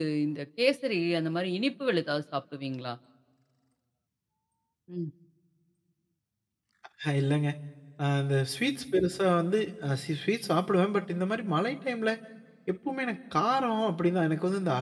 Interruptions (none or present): none